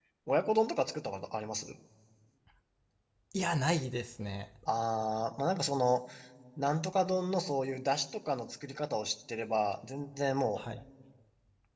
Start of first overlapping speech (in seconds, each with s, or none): none